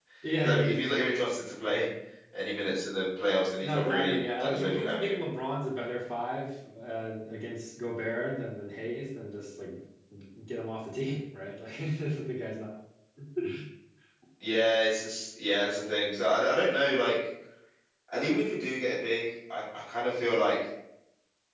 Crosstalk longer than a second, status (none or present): present